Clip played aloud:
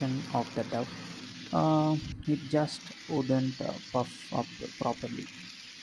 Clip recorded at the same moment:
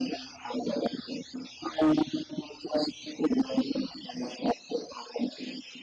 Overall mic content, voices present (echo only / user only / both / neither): echo only